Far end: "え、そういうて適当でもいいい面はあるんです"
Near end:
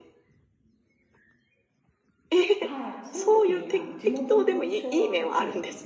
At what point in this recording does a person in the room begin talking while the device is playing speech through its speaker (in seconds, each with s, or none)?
2.6 s